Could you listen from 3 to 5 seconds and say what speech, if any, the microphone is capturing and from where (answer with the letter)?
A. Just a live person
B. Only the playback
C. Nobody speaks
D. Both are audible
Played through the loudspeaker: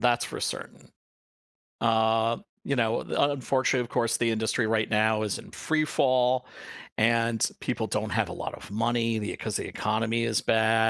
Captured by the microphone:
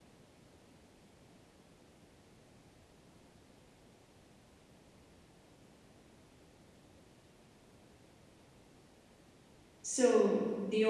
C